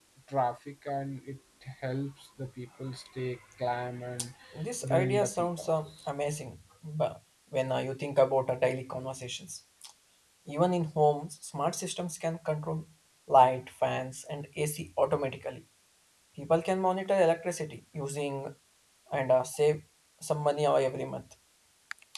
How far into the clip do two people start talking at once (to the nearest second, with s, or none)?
5 s